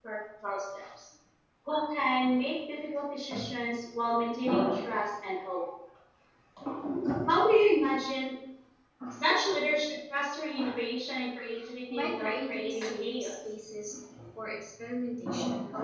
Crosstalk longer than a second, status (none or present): present